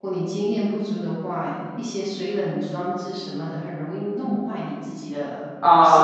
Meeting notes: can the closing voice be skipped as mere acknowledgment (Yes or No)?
No